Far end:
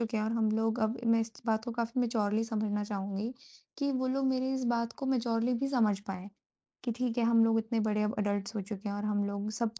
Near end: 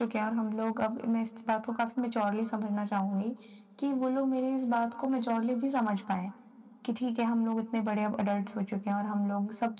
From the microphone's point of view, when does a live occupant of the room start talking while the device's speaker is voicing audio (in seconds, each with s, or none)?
none